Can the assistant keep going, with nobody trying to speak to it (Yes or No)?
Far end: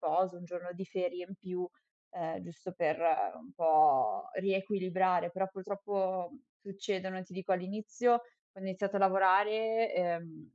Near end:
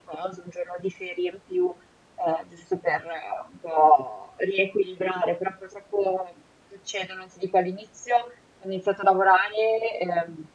Yes